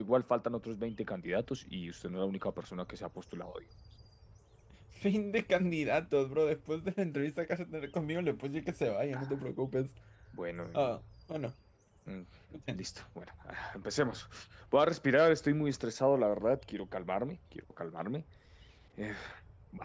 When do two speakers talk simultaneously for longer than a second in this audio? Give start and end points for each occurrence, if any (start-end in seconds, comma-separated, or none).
none